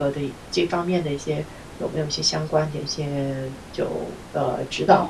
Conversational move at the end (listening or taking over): taking over